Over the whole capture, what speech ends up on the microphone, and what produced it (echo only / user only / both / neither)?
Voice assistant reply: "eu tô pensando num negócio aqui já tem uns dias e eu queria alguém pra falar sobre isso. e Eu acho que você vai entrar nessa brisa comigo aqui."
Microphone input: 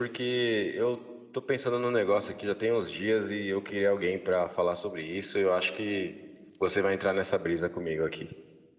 echo only